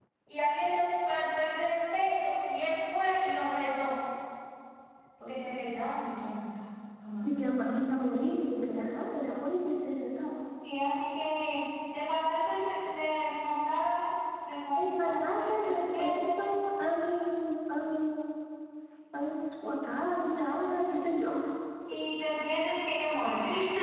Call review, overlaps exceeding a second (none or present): present